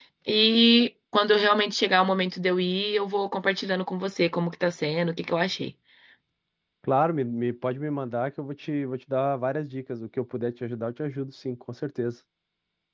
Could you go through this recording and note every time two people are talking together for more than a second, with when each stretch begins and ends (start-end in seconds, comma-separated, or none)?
none